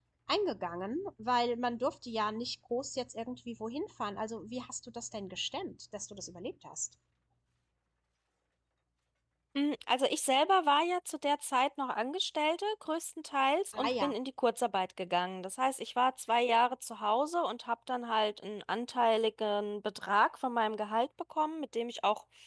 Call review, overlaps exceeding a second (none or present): none